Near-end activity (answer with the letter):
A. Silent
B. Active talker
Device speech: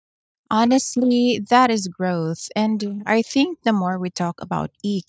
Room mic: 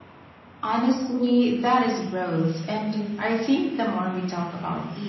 A